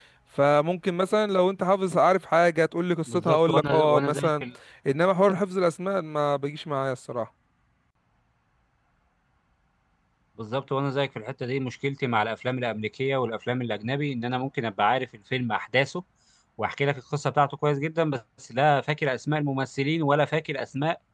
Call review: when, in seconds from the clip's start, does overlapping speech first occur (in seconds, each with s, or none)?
3.1 s